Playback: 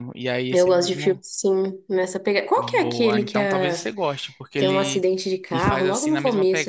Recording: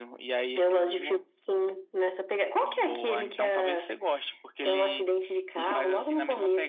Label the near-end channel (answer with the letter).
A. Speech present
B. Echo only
B